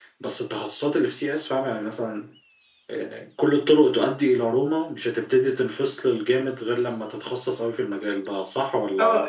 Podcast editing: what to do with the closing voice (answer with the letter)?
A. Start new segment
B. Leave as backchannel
A